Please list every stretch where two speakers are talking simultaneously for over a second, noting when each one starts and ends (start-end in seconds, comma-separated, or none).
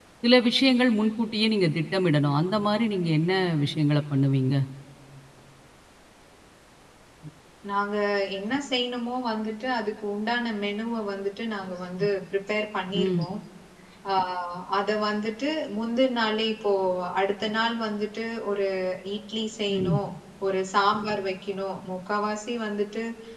none